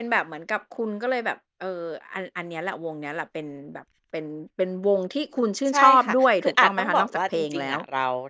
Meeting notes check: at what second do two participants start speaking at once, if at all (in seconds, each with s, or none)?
5.7 s